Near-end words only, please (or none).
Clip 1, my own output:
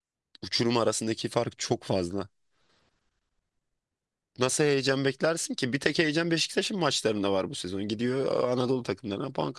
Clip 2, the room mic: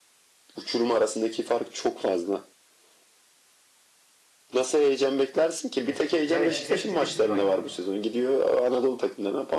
e, yani hepsi dişli rakip.